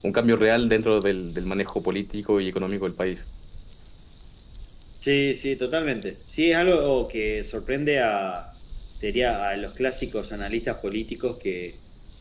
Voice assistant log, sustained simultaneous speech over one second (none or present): none